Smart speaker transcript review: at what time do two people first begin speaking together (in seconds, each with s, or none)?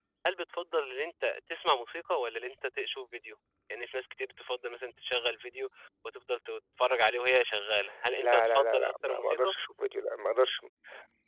8.2 s